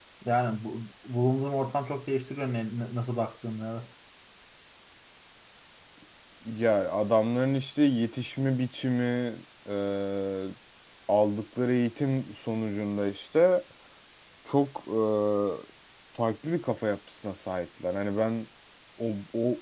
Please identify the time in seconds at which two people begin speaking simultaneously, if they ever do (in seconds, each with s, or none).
none